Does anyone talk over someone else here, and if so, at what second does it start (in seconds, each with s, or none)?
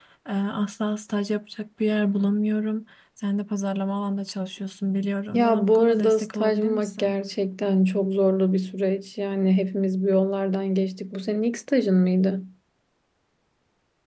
5.3 s